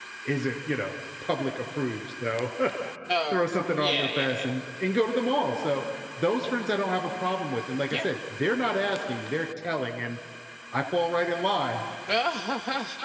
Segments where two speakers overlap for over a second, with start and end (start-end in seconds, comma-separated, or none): 3.3-4.5